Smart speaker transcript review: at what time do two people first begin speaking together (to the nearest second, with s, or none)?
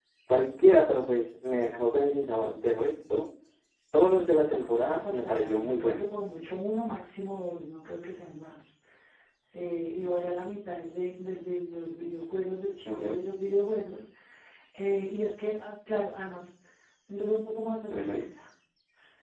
4 s